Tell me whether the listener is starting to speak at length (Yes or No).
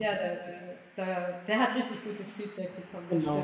Yes